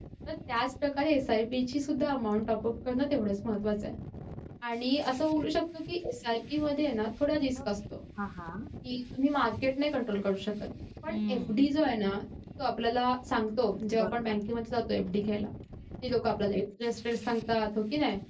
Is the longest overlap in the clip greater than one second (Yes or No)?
No